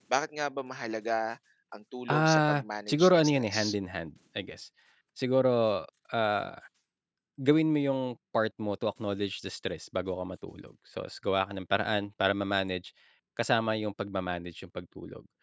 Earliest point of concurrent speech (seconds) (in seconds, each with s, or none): 2.1 s